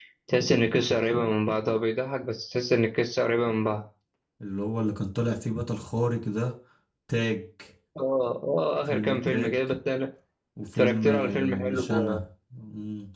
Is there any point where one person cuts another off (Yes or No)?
Yes